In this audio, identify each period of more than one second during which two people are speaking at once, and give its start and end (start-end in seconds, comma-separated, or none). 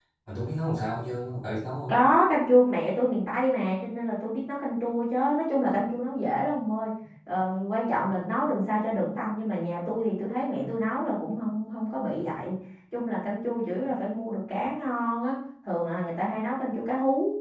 none